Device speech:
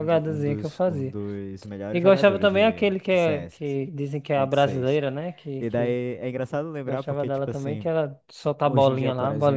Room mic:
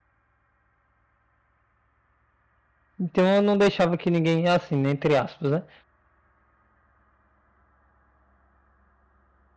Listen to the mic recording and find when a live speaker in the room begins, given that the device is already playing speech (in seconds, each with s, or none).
3.0 s